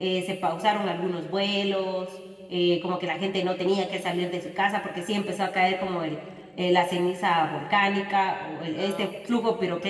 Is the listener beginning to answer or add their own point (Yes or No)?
No